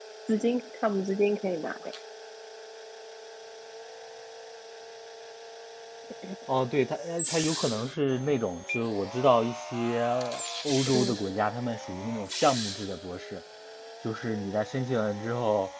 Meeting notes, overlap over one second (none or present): none